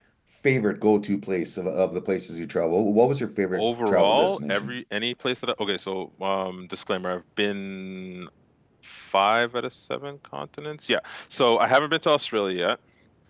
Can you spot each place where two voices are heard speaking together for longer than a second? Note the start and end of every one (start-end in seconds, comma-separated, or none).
3.5-4.7